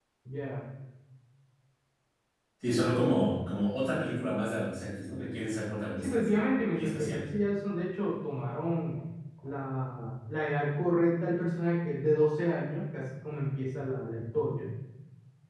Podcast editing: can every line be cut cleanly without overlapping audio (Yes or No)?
No